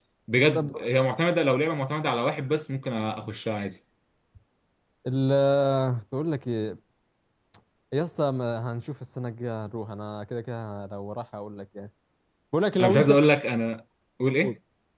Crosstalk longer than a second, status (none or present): none